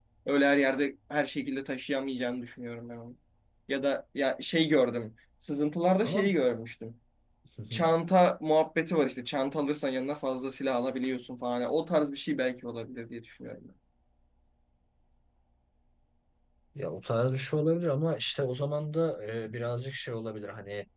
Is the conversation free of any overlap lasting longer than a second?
Yes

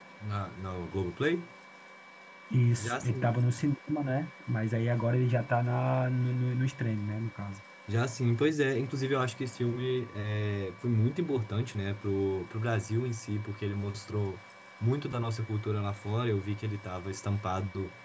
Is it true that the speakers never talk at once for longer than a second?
Yes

